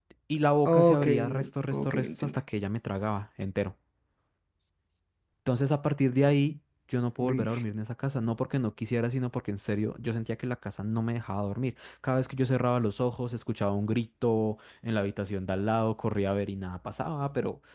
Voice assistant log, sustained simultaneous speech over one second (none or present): present